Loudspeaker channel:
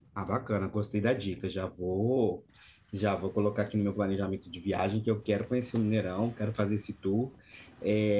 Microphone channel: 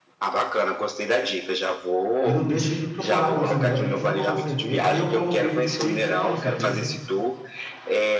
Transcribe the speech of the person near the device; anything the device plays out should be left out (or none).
E não deixe de me procurar quando você vier pra gente tomar uma cerveja. Aí eu como o bife de fígado e você toma cerveja.